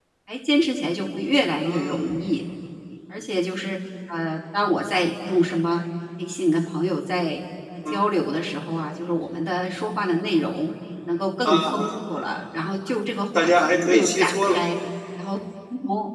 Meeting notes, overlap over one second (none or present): present